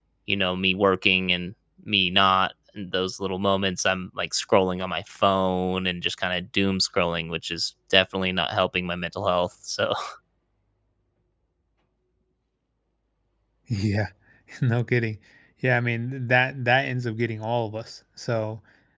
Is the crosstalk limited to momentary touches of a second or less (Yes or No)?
Yes